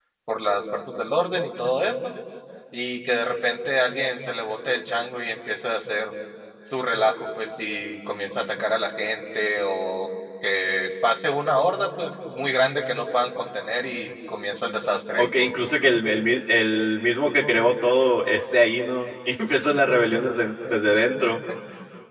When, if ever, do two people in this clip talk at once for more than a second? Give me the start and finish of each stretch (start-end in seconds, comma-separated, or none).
none